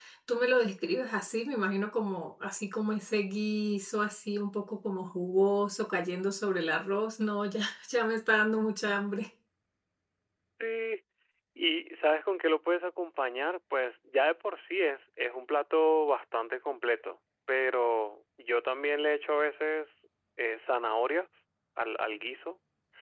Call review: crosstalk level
none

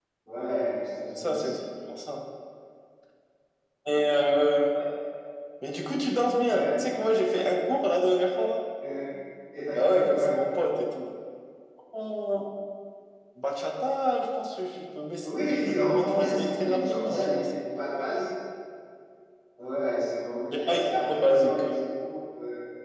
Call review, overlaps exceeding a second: present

